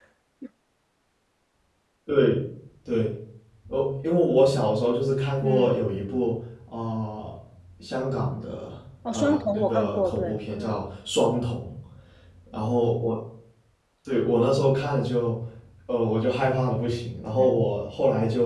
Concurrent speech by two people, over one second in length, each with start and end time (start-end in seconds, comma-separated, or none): 9.1-10.7